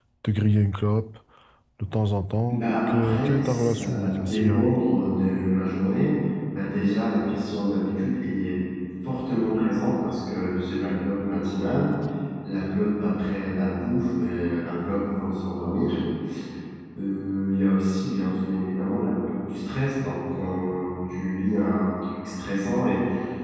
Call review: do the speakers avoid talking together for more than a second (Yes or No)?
No